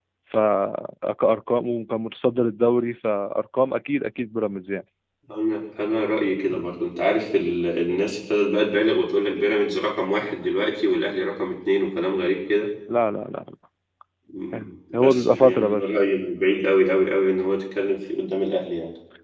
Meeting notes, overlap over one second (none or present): present